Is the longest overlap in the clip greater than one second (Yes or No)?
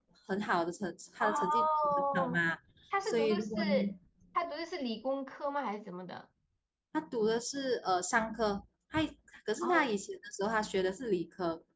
Yes